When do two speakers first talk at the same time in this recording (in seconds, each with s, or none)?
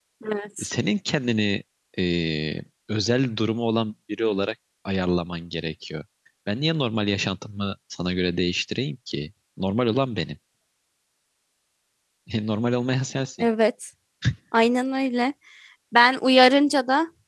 none